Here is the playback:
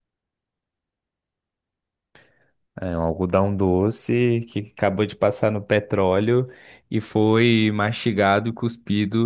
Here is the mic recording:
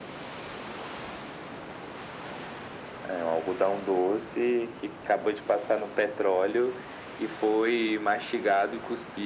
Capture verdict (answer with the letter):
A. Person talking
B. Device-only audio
B